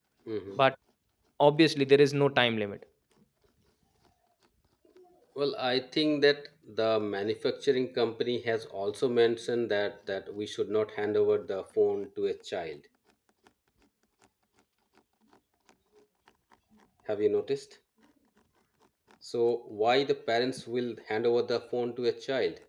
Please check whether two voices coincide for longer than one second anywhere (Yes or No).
No